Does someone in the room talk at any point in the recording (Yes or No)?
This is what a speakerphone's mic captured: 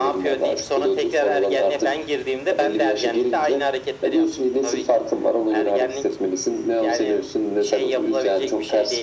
No